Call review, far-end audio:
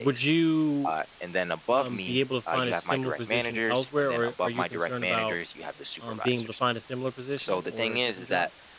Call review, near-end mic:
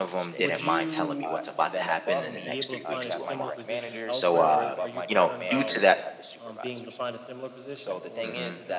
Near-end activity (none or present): present